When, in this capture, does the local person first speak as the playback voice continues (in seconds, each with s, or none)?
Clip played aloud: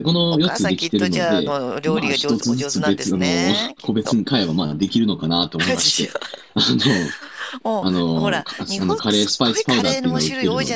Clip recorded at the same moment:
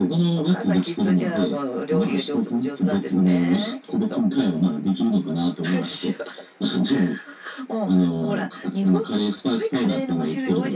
none